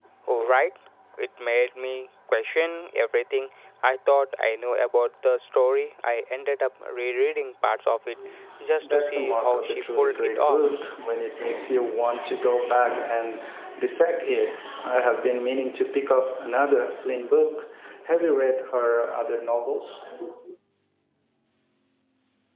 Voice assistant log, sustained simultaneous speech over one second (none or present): present